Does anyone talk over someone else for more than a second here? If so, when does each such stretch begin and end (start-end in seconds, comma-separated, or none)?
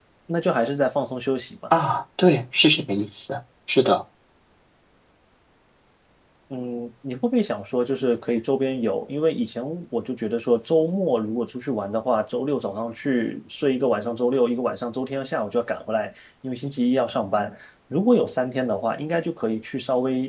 none